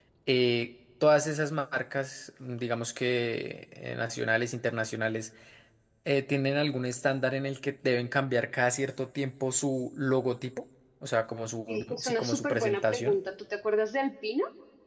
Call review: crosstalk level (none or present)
present